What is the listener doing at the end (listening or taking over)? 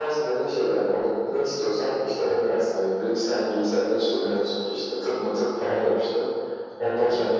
listening